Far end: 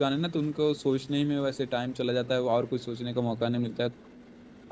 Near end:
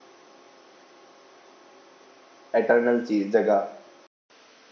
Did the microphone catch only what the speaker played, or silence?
No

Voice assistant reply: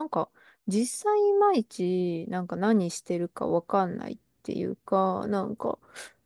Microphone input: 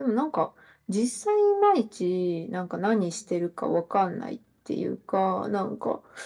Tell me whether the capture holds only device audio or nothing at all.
Yes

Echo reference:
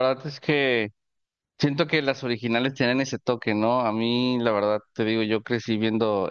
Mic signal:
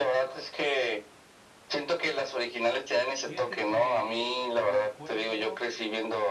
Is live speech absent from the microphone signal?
No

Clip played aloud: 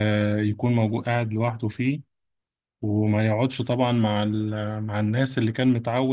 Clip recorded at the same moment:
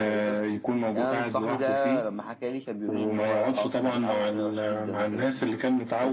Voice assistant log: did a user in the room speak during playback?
Yes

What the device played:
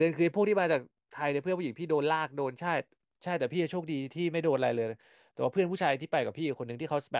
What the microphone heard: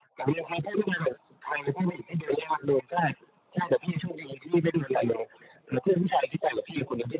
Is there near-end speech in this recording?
No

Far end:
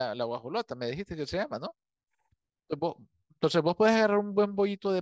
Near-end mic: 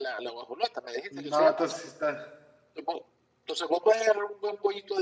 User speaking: Yes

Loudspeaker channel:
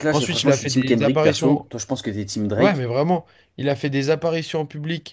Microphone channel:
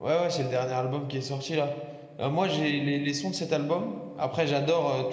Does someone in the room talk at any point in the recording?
Yes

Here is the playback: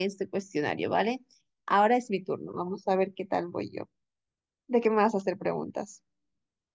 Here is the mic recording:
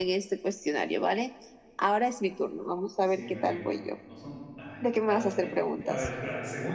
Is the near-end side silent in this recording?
No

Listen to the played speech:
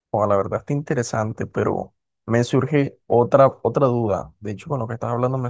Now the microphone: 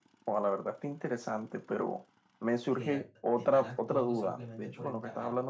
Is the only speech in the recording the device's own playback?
No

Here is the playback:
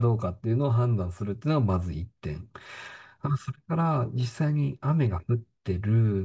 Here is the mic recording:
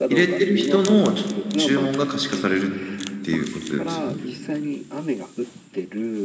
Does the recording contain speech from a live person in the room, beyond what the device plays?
Yes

